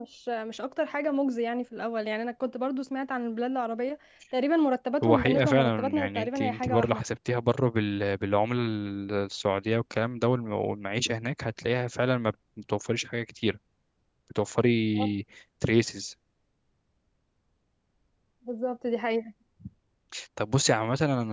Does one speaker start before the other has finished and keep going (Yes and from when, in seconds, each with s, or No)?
Yes, from 5.0 s